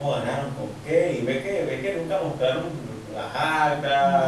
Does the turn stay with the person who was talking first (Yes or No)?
No